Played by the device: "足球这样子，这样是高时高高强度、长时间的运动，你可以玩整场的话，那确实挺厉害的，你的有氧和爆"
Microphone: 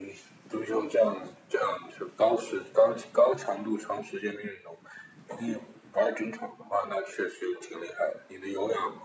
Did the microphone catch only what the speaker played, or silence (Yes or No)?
Yes